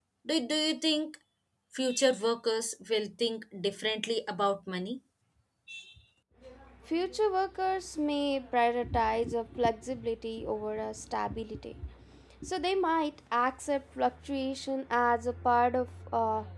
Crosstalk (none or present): none